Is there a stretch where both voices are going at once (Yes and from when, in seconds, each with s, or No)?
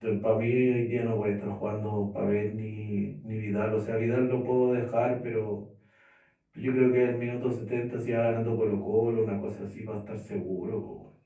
No